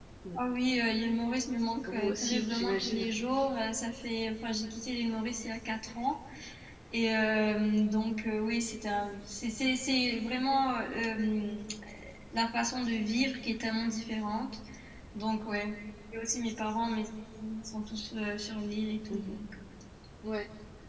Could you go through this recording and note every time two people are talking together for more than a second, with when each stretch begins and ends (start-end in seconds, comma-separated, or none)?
1.9-3.1